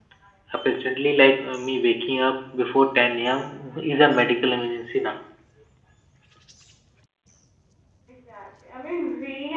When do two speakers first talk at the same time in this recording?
none

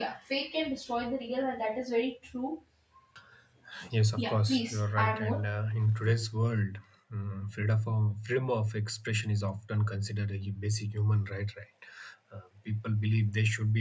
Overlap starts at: 4.2 s

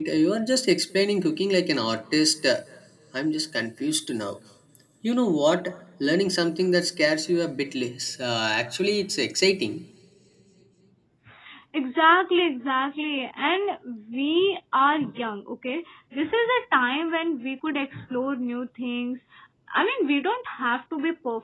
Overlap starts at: none

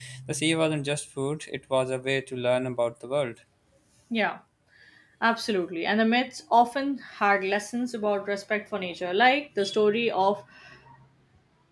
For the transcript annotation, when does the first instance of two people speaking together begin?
none

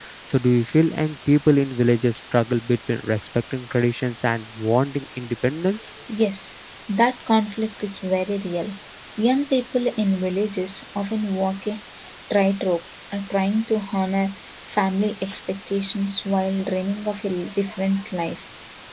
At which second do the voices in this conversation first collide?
none

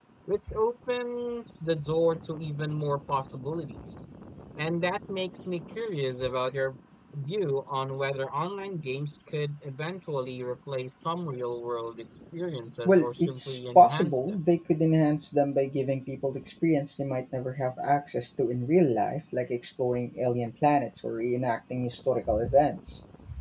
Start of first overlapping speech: 12.8 s

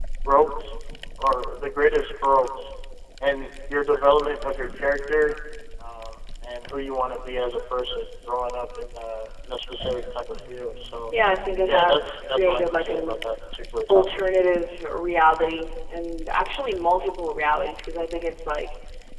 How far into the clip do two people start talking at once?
11.7 s

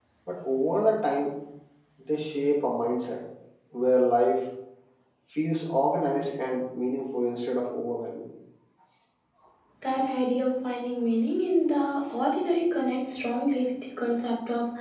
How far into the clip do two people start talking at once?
none

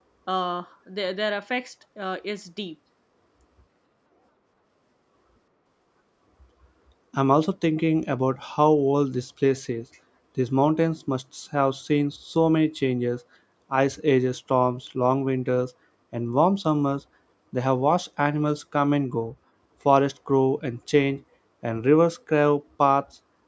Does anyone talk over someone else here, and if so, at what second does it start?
none

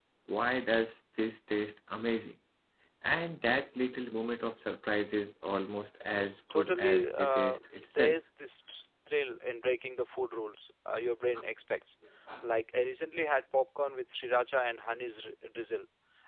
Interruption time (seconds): 6.1 s

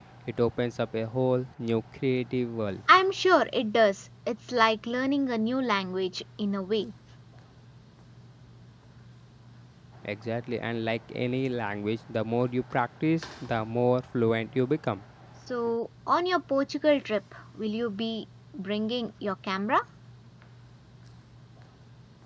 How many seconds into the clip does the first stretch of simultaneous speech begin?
none

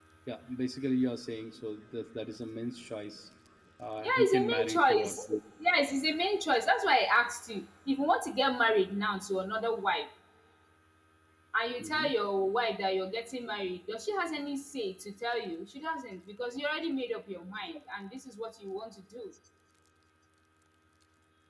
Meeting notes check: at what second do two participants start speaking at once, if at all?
4.0 s

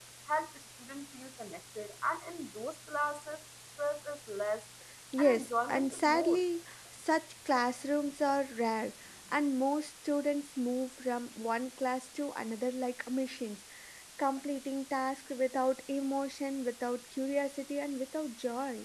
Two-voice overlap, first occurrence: 5.2 s

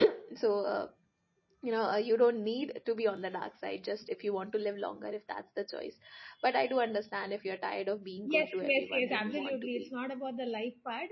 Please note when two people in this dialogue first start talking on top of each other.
8.2 s

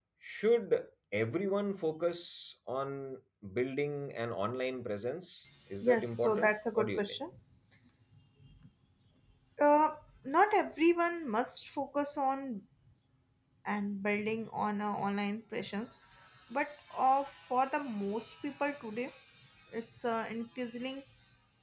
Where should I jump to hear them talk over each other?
5.8 s

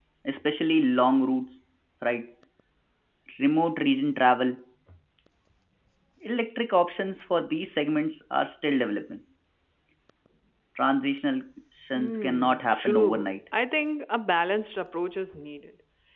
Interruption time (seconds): 12.0 s

